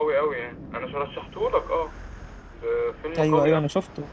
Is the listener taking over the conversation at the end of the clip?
Yes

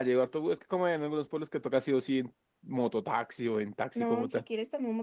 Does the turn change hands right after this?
Yes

